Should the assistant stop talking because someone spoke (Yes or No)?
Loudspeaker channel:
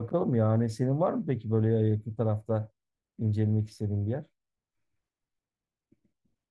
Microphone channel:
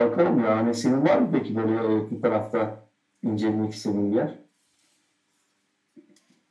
No